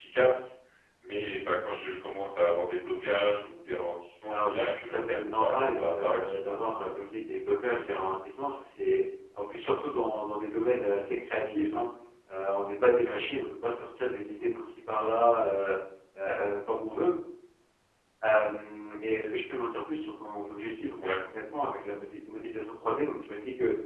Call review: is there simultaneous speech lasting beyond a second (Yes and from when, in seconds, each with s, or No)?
Yes, from 4.3 s